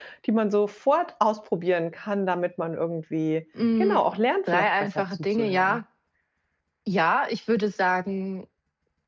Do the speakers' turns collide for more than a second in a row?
Yes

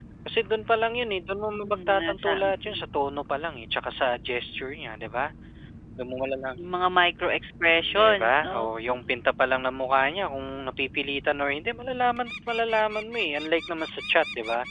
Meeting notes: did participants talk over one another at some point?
Yes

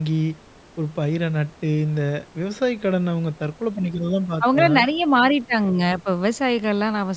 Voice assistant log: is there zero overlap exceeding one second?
Yes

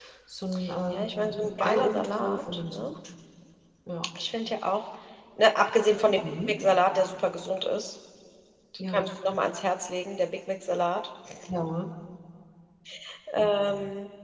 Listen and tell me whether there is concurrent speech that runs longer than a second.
Yes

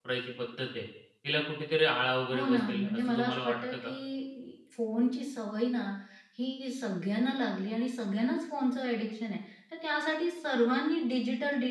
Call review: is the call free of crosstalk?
No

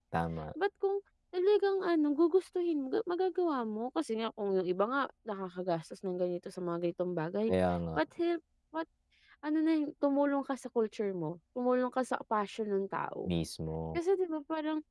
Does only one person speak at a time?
Yes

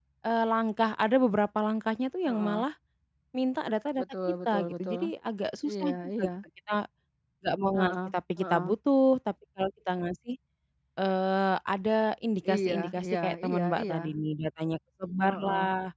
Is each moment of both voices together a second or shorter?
No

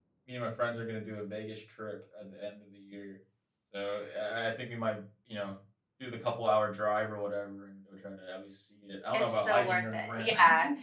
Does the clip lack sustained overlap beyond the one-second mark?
No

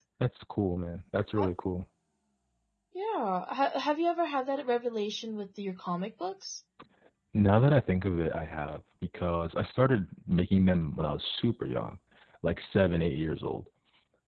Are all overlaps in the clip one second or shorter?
Yes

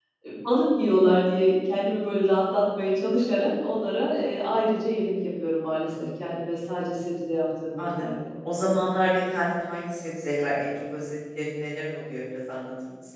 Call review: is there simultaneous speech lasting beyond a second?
No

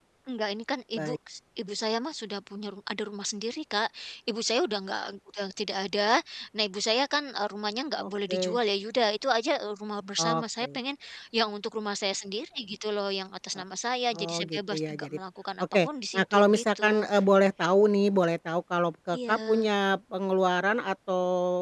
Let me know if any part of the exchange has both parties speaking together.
Yes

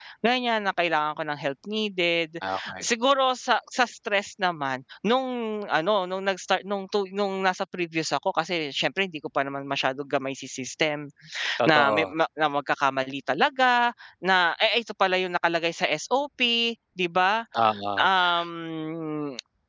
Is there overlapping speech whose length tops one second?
No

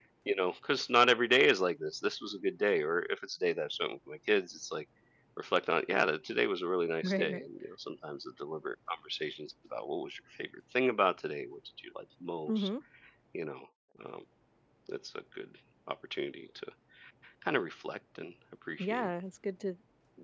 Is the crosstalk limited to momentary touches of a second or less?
Yes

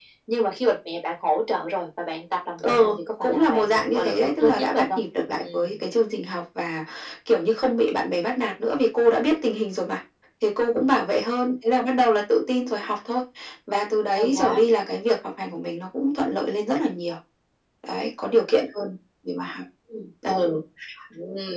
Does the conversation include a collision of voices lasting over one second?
Yes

